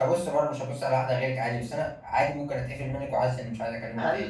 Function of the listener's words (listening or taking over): taking over